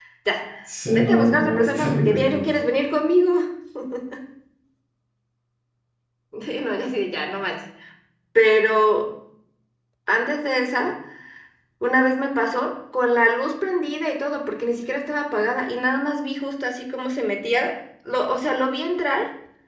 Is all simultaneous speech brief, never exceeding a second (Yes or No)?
No